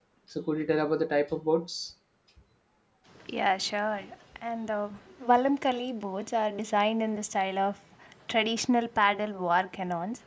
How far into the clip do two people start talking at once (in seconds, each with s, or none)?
none